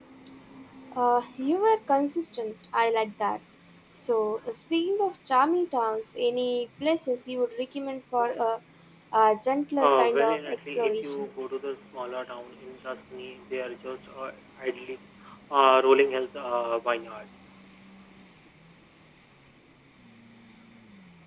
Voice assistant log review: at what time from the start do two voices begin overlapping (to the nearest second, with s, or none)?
10 s